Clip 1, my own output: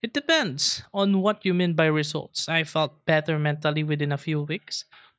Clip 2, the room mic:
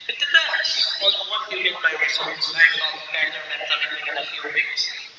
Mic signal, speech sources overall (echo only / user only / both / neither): echo only